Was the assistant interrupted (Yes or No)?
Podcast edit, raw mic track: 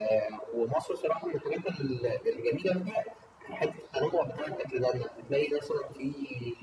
No